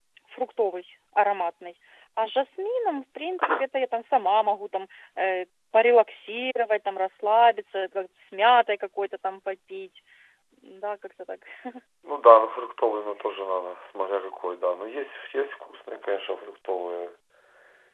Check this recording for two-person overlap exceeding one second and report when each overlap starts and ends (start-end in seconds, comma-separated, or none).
none